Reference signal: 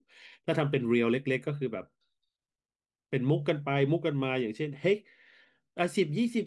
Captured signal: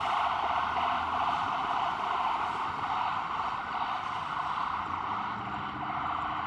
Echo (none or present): none